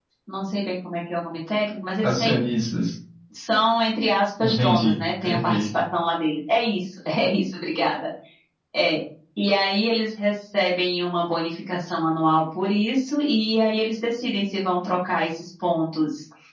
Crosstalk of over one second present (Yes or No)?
Yes